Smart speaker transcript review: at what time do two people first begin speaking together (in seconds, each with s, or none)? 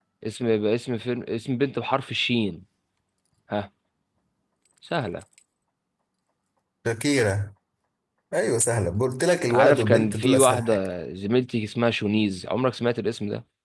9.5 s